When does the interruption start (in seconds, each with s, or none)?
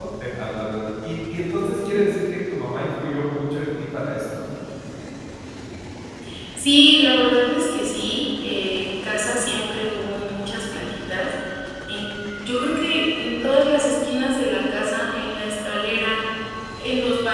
none